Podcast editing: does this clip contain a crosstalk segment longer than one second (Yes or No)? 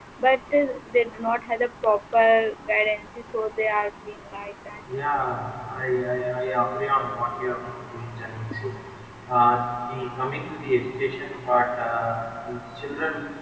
No